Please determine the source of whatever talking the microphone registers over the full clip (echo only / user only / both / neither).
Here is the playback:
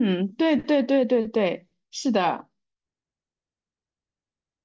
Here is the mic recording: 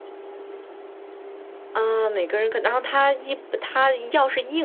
user only